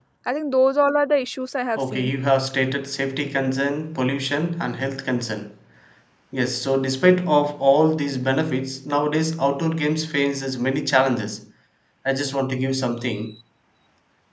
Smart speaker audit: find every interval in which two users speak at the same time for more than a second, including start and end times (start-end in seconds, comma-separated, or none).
none